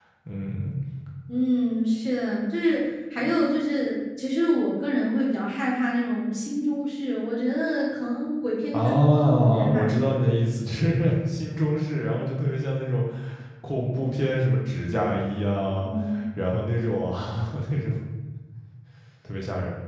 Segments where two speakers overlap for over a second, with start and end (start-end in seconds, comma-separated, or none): 8.7-10.0